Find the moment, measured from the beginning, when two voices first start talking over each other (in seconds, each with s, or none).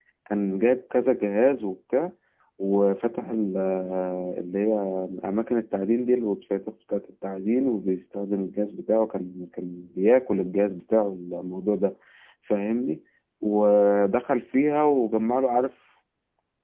none